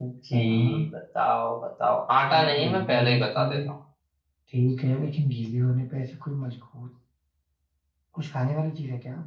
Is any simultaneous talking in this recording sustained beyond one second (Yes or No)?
Yes